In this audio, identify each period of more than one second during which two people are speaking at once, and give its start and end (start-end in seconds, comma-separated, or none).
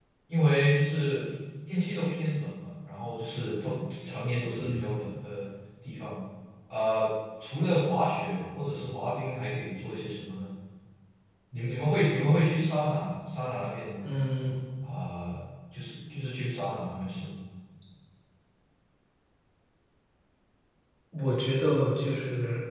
none